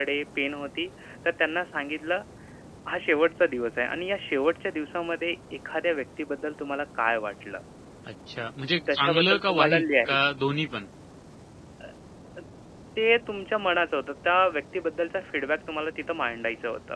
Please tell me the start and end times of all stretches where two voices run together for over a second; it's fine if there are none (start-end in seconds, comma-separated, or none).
8.9-10.2